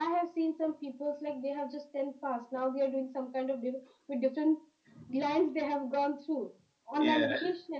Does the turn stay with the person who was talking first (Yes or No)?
Yes